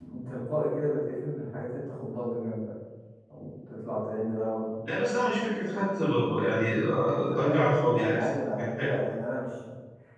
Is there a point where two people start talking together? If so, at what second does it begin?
7 s

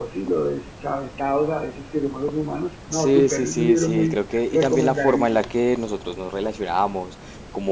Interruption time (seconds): 3 s

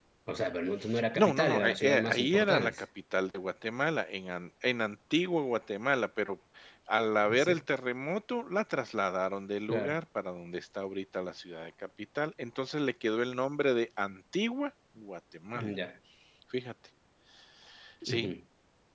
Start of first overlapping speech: 1 s

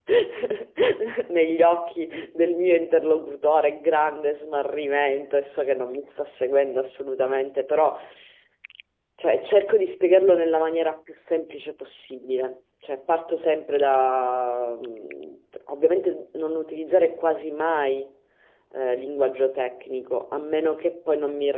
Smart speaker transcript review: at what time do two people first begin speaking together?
none

